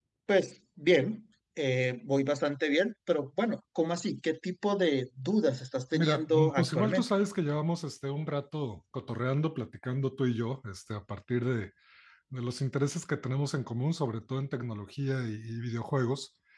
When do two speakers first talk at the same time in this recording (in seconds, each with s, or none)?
5.9 s